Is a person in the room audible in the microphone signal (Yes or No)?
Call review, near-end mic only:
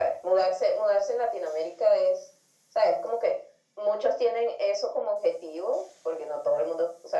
No